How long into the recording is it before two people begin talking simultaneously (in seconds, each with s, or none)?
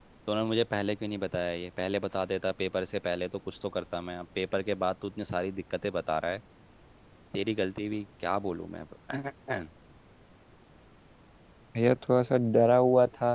none